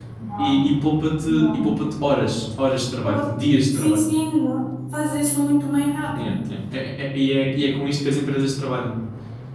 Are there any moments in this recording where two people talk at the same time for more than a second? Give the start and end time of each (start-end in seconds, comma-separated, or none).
none